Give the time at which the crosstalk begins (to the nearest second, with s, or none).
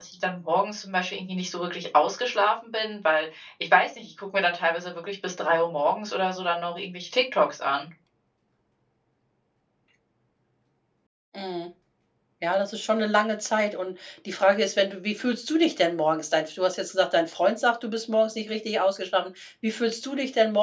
none